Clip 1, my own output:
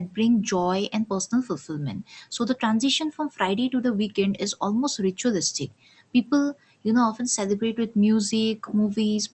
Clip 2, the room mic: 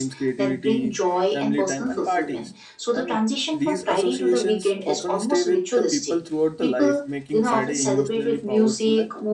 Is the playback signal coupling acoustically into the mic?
Yes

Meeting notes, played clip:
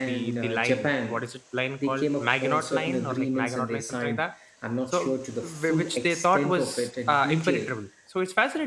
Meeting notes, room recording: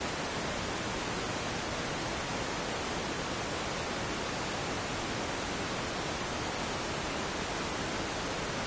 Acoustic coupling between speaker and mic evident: No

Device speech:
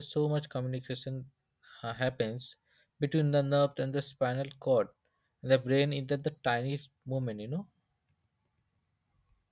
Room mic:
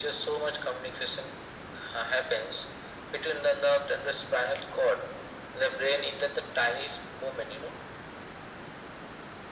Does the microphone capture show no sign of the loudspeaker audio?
No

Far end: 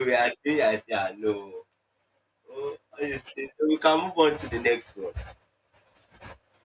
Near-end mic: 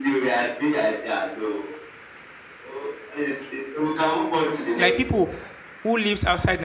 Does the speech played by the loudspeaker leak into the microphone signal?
Yes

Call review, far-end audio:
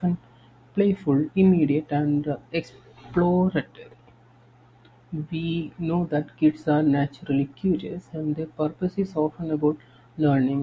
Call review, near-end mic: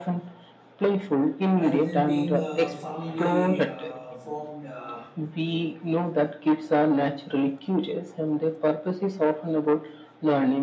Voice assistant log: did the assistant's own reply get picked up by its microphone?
Yes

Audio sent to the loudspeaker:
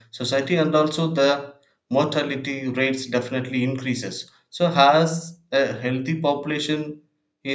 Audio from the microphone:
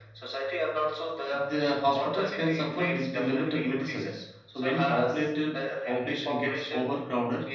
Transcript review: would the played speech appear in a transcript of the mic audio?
Yes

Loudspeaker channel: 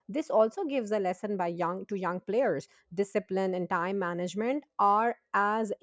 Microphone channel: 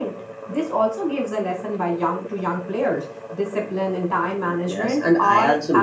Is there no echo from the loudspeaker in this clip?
No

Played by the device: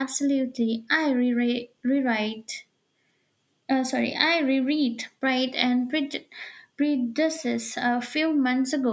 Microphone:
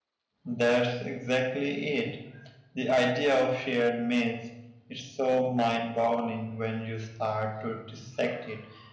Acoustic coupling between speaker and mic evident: No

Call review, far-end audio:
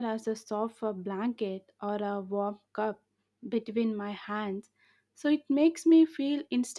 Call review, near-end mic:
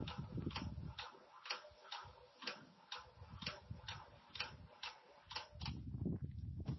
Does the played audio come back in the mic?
No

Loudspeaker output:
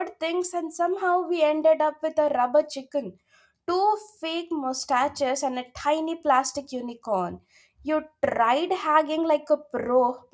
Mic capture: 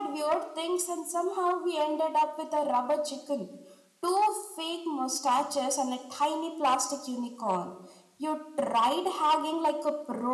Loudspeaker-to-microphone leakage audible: Yes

